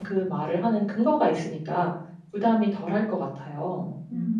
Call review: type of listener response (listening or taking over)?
taking over